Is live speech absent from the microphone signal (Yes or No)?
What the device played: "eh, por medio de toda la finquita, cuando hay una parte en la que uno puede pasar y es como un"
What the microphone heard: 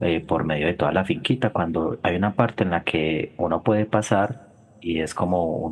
Yes